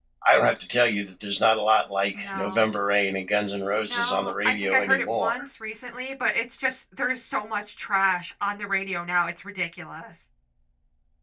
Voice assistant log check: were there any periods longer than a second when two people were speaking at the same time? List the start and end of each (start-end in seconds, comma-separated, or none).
3.8-5.3